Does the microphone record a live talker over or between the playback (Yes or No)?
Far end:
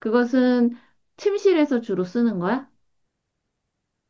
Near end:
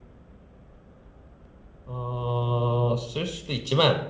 Yes